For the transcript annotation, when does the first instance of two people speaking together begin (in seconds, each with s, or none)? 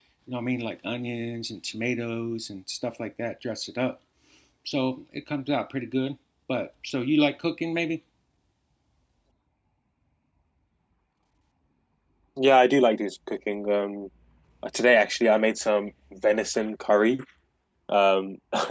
none